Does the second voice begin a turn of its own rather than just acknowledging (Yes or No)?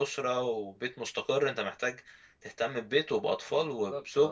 No